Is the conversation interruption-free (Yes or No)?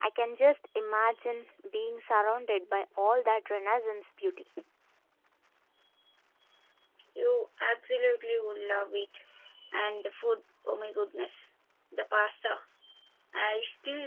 Yes